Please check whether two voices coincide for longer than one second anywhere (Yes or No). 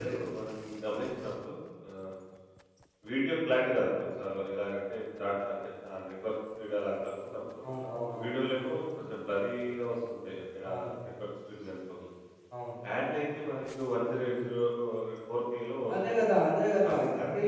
No